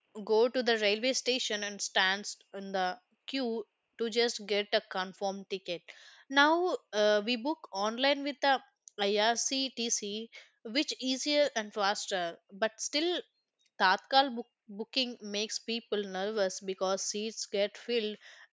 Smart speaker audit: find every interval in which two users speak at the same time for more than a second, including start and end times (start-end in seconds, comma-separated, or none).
none